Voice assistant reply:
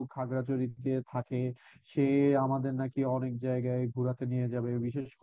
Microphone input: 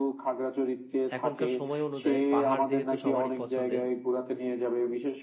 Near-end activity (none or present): present